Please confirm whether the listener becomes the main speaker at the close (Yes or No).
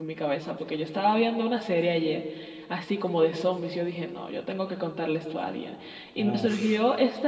No